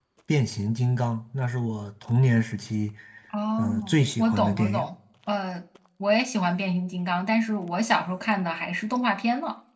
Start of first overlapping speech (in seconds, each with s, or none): 3.6 s